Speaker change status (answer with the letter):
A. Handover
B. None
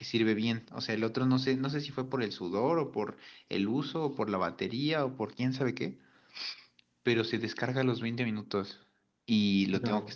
B